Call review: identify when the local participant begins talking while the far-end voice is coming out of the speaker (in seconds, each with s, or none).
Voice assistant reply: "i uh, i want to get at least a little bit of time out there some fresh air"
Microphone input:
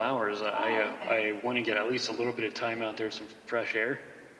0.5 s